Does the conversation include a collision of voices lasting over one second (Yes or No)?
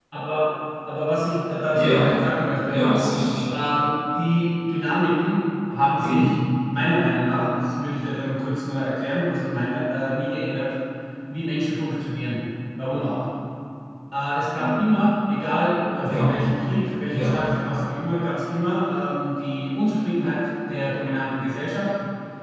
No